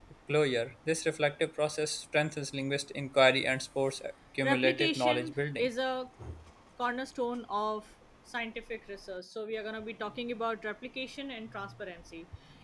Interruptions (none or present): present